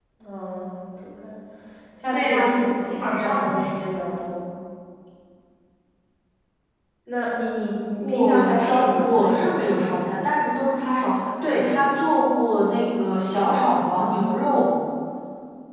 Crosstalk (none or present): present